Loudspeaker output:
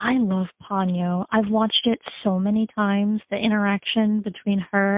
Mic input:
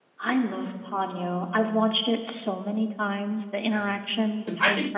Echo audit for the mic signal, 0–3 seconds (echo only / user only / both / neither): echo only